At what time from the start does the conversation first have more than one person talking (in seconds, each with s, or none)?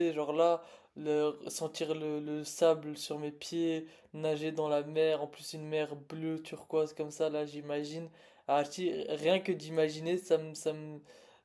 none